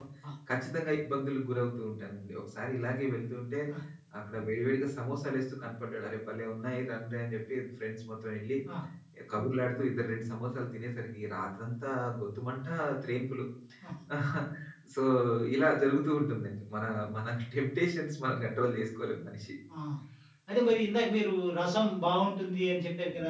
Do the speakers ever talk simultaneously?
No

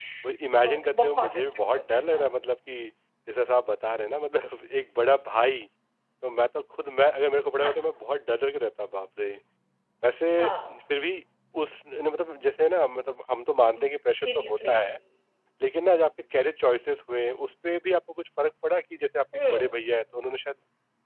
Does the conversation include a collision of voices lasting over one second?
Yes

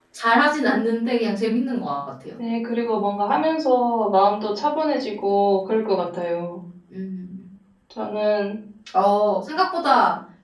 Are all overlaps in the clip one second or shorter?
Yes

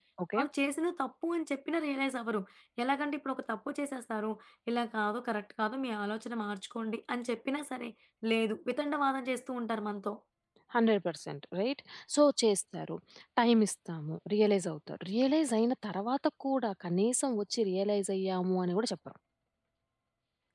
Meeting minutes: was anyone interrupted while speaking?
No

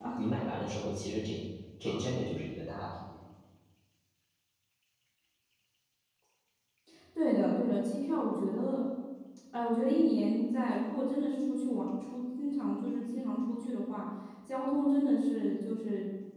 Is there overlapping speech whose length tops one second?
No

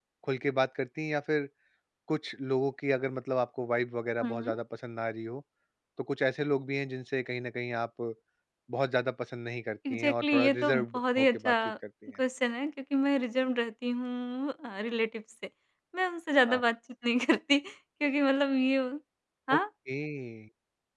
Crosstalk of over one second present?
Yes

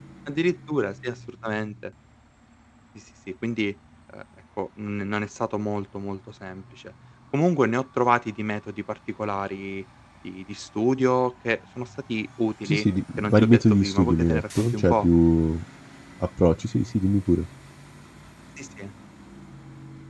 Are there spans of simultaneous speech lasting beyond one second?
Yes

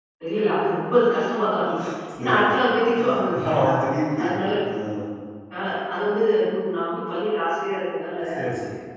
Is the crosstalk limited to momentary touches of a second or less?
Yes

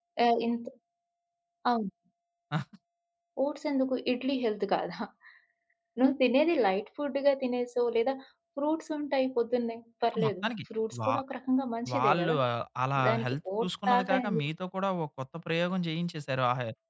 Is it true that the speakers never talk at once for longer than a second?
No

